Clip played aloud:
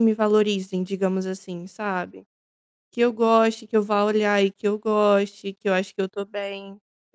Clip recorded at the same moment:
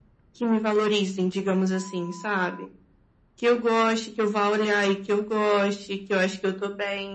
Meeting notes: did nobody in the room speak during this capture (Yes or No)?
Yes